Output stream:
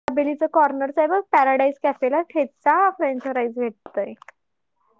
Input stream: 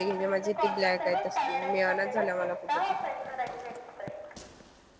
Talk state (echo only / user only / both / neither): both